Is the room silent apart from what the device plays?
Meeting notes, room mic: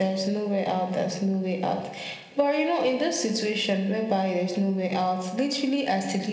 Yes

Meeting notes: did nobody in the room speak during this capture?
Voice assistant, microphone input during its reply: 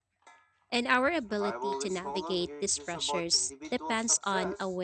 No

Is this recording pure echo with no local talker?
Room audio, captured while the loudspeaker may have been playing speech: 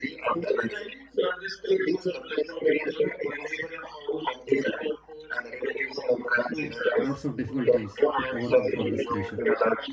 No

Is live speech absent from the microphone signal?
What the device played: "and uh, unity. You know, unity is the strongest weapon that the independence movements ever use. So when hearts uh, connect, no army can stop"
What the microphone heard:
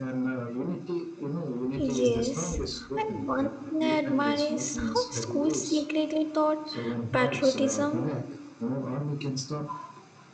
No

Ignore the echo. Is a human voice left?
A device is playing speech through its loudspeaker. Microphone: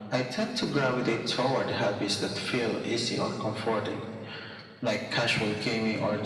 No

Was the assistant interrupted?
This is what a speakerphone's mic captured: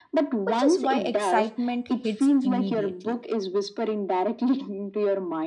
Yes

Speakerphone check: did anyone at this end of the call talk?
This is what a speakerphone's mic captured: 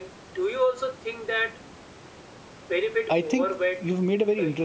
Yes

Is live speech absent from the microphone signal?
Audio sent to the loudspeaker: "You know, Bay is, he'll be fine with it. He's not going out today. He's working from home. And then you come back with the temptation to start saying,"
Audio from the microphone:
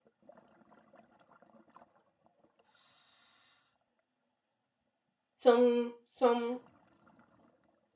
No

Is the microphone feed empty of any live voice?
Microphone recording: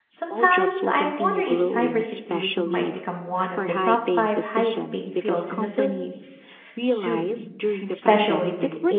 No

